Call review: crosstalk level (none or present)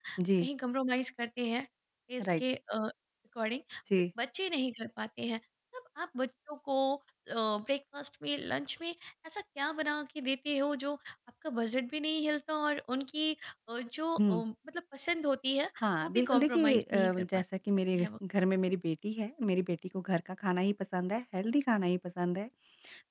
present